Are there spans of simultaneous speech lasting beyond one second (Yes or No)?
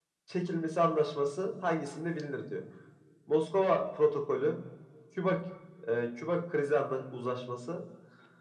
No